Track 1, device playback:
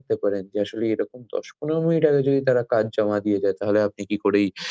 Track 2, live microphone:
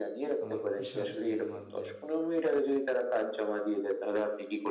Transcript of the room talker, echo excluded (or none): আমার পেশার যে আমার যে